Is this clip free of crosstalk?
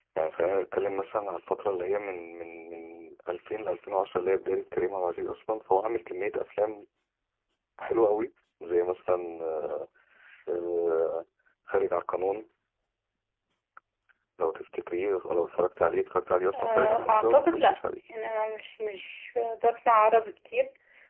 No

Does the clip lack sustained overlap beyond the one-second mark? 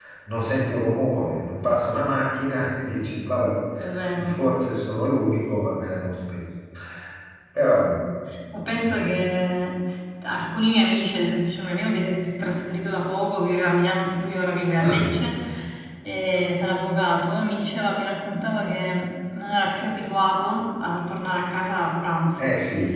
Yes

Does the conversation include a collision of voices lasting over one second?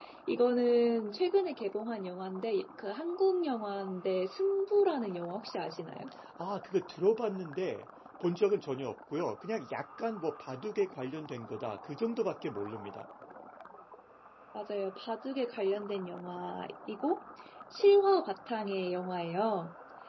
No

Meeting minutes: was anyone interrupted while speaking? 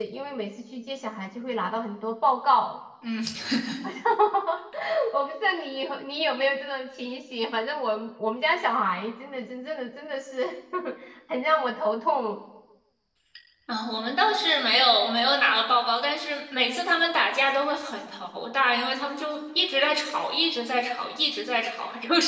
No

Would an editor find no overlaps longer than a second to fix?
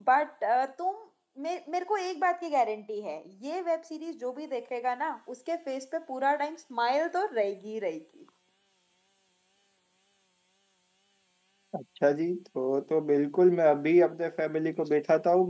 Yes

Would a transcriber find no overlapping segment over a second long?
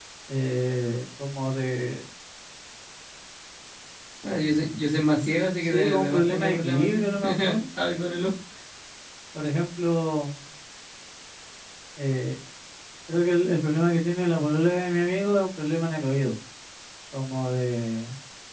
No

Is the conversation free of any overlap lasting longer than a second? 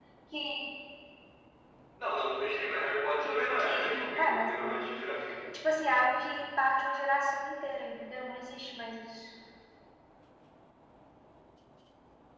No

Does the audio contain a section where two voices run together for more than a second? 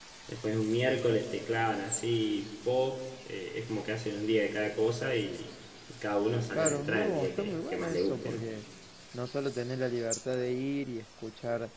Yes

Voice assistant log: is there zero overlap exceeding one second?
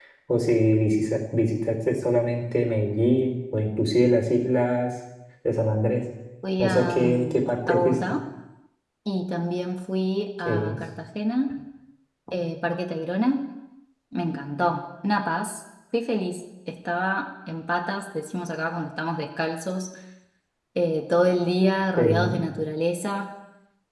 No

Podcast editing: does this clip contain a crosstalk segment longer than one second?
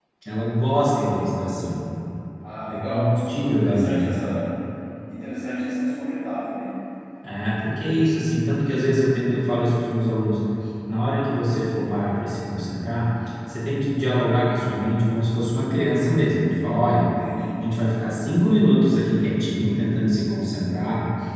Yes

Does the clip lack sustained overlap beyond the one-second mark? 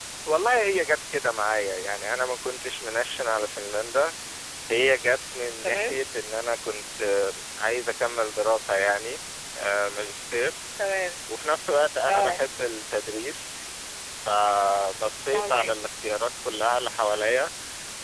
Yes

